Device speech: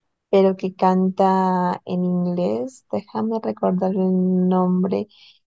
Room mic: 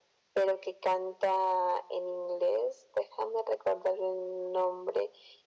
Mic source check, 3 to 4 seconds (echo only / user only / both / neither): echo only